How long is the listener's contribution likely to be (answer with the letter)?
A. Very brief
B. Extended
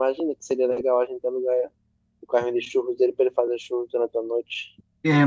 B